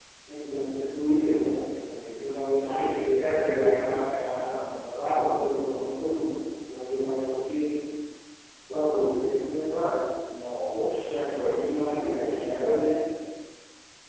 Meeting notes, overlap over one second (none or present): present